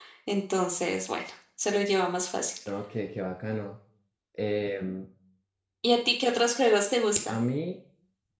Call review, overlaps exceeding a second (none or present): none